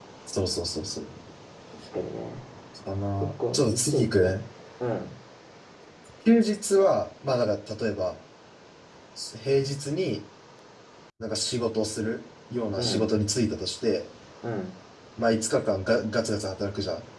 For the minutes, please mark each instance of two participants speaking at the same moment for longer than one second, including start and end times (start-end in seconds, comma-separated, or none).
3.2-4.4